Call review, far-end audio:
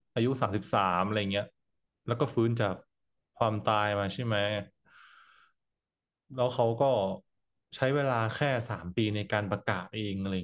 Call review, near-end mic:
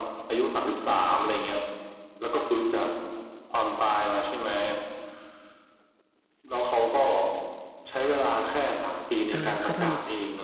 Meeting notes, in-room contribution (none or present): present